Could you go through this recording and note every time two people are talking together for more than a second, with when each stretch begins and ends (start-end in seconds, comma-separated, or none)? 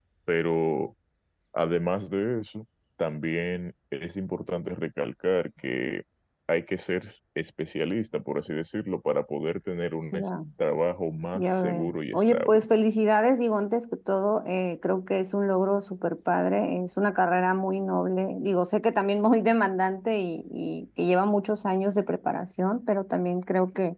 11.3-12.6